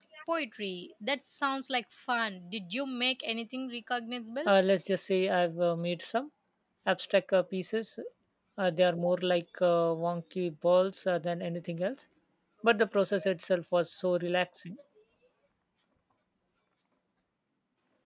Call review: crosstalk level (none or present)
none